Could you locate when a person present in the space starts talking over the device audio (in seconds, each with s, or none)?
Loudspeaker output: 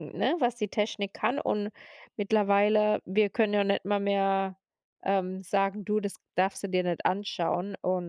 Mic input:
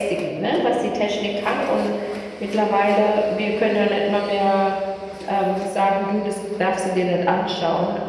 none